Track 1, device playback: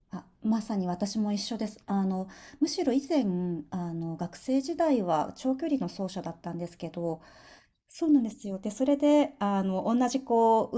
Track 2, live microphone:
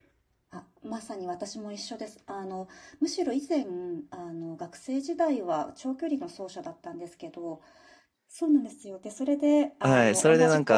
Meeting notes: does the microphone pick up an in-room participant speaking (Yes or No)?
Yes